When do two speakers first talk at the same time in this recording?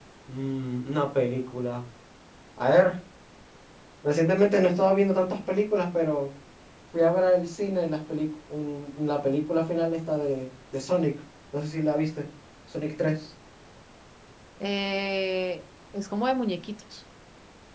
none

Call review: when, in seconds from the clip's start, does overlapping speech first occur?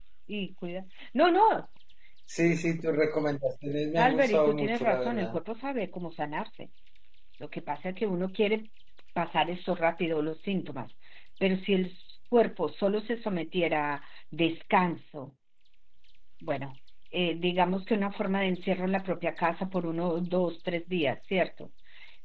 4.0 s

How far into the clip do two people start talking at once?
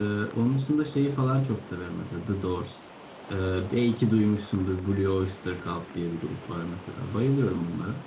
none

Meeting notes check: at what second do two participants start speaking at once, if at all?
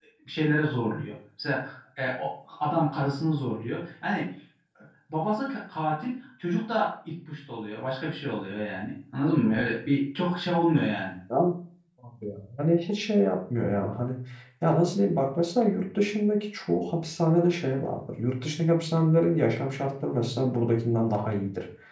none

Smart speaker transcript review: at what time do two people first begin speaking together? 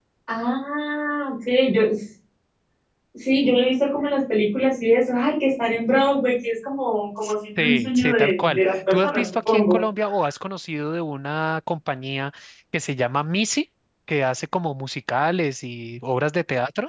7.6 s

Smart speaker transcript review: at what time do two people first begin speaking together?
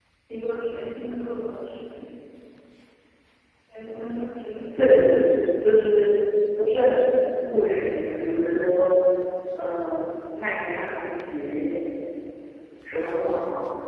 none

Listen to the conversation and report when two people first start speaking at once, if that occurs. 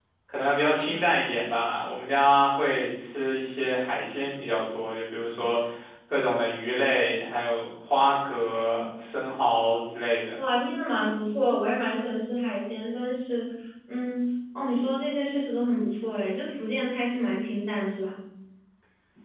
none

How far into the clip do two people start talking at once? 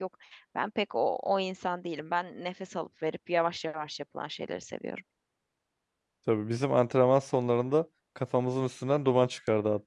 none

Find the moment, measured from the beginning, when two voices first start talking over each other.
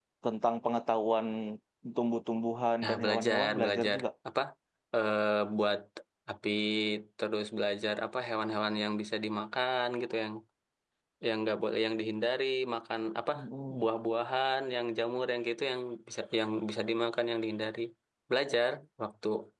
2.8 s

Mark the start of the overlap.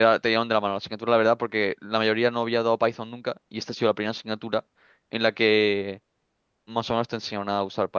none

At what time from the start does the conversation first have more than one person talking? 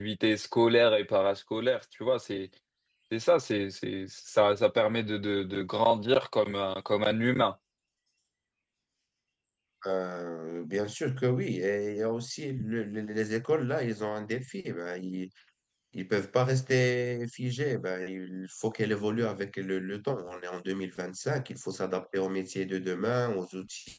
none

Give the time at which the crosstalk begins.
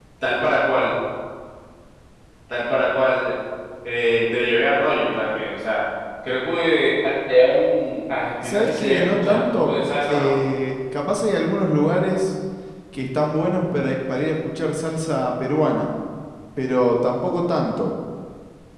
8.4 s

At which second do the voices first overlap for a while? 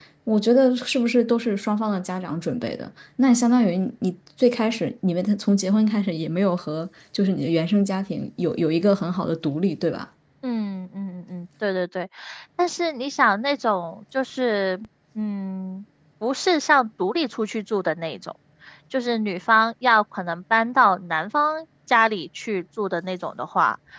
none

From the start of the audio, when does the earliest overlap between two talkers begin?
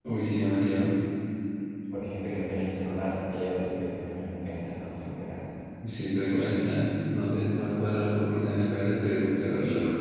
none

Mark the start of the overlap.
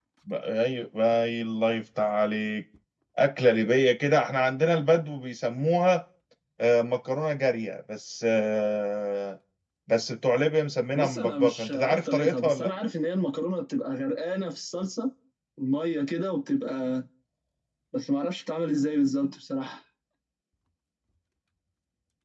10.9 s

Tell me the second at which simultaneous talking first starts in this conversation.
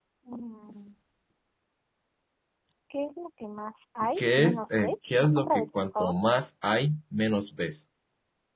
4.2 s

